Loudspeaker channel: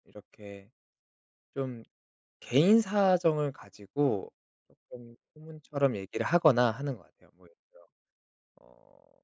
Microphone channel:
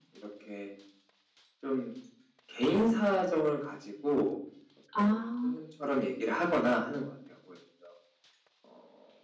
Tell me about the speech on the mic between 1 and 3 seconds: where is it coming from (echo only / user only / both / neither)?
echo only